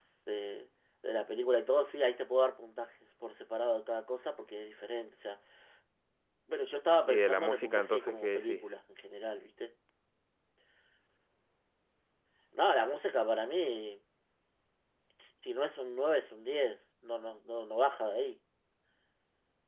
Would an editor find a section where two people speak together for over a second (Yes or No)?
Yes